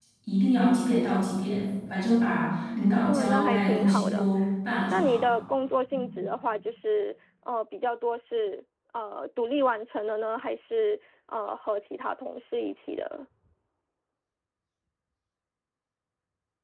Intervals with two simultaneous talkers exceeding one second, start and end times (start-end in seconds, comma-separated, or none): 3.1-4.3